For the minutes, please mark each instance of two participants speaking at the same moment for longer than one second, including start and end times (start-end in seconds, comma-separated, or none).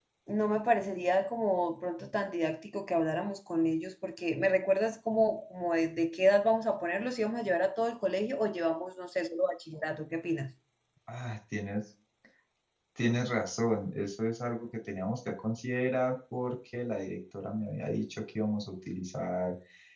none